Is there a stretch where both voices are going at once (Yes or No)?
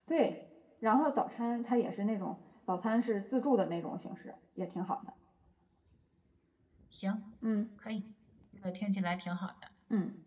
No